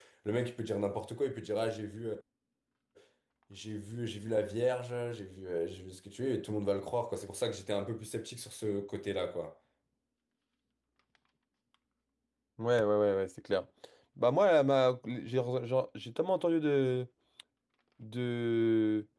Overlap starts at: none

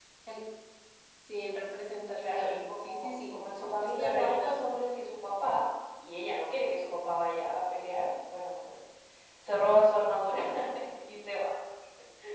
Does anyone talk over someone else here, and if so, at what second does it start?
2.2 s

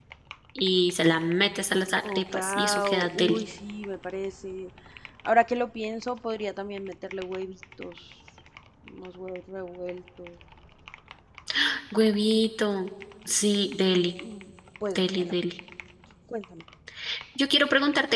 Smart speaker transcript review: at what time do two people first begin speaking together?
2.1 s

